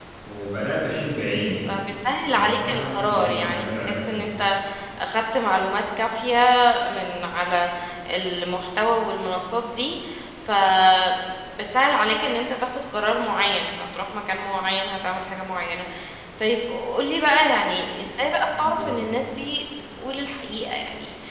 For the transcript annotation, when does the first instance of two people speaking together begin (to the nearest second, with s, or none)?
2 s